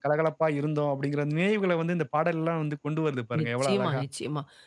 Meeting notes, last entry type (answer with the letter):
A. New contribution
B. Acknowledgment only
A